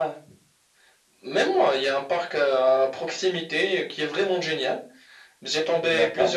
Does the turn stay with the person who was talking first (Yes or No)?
Yes